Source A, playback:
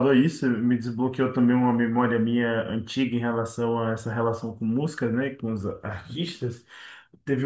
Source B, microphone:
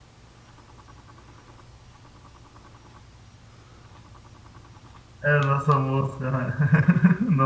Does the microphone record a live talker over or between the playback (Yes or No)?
Yes